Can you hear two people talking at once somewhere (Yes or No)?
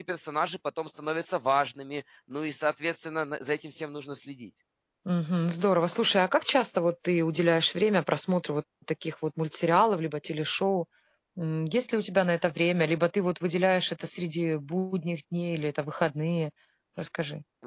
No